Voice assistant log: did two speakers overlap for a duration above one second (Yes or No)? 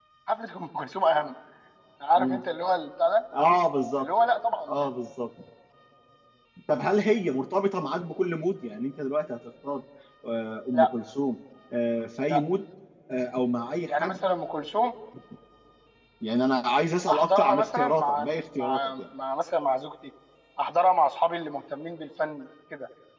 Yes